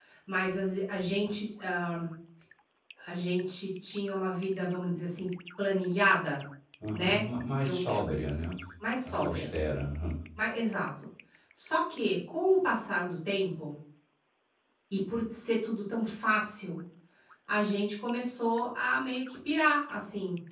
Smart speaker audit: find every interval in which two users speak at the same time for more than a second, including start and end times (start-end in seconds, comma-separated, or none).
none